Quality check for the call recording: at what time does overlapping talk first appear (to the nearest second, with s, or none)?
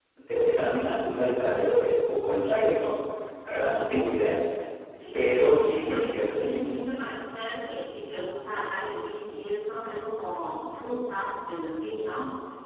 5 s